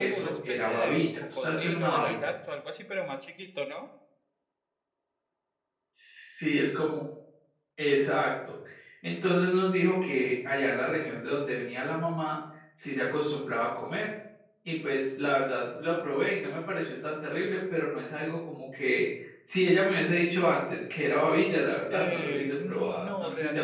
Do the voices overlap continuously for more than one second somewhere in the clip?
Yes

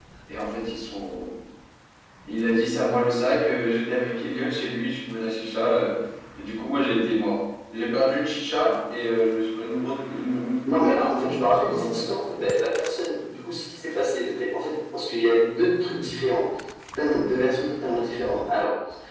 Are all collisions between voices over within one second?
No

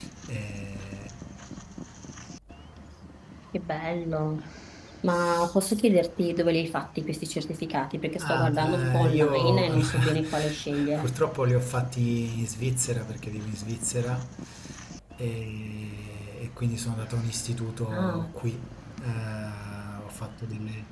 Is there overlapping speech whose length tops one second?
Yes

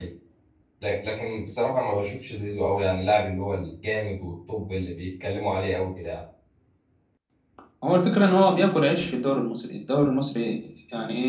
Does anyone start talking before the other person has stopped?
No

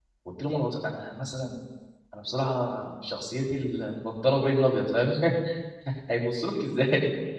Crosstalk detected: No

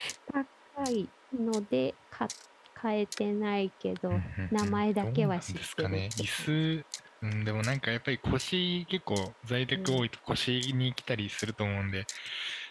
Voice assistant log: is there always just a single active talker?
No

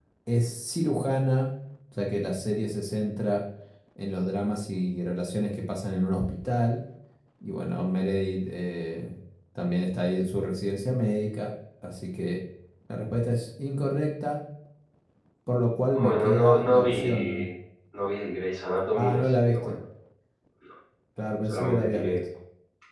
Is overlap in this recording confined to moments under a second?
No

